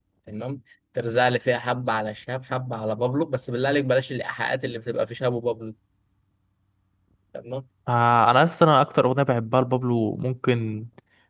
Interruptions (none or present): none